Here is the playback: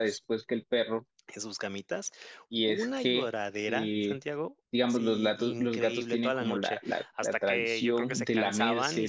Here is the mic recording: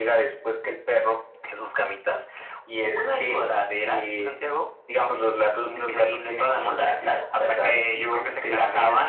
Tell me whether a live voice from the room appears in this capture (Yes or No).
No